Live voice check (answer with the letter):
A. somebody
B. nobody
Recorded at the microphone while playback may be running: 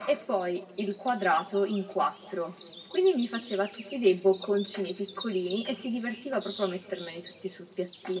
B